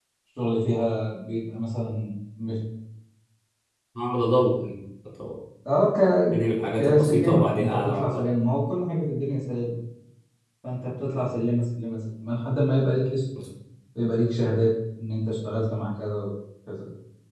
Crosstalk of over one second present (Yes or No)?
Yes